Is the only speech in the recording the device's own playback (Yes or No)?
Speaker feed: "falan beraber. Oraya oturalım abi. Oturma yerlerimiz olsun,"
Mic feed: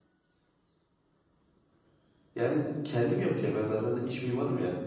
No